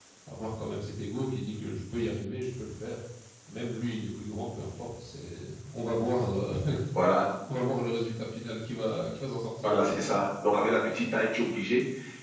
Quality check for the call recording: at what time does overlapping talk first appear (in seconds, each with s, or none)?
none